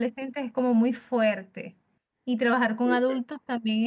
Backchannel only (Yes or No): Yes